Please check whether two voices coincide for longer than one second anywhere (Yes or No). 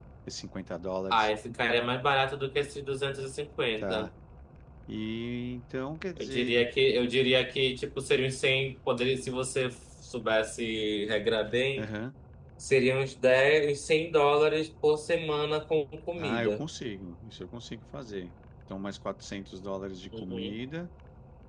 No